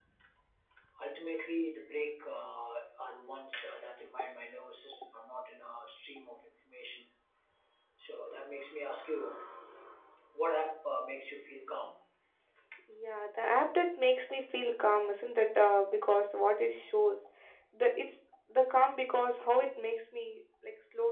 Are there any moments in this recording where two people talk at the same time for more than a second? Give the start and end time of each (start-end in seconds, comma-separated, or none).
none